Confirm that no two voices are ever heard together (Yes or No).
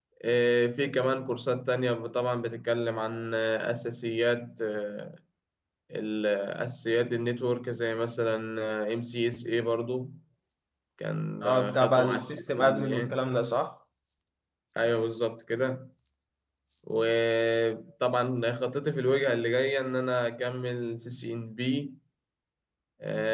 No